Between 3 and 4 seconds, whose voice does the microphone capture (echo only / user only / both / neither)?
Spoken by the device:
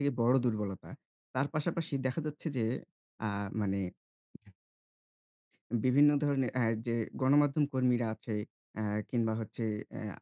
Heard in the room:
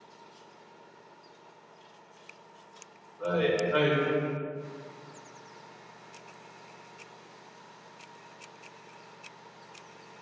user only